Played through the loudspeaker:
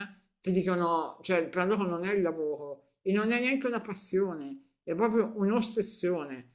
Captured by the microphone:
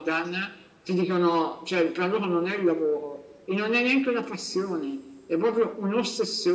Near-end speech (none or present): none